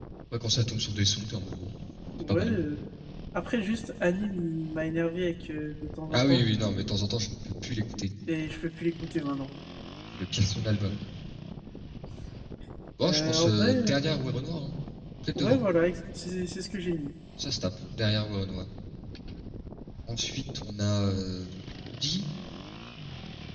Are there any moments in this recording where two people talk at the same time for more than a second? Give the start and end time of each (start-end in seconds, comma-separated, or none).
13.0-14.2